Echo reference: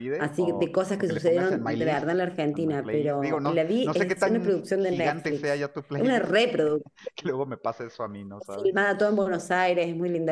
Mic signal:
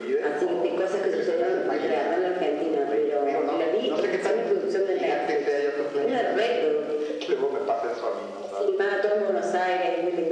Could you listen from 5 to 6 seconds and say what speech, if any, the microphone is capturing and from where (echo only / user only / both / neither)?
echo only